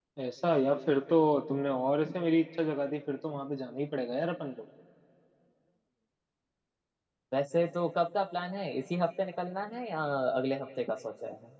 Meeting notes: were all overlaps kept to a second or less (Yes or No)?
Yes